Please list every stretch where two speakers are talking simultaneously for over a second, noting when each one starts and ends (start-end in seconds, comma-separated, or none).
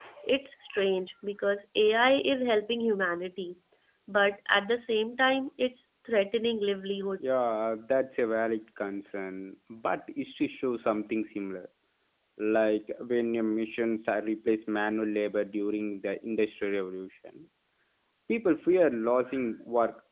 none